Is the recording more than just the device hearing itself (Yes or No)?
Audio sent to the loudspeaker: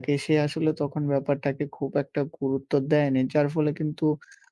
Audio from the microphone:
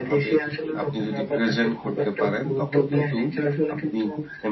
Yes